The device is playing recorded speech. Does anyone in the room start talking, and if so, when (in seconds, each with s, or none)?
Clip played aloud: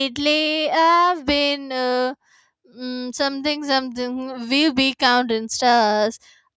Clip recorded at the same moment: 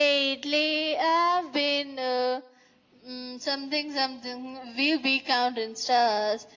none